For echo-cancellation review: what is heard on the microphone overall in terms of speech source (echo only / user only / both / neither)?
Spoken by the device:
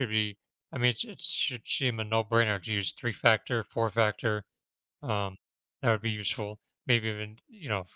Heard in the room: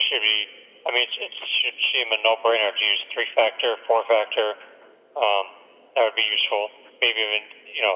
echo only